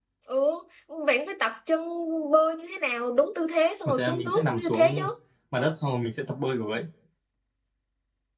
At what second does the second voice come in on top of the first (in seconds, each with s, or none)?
3.9 s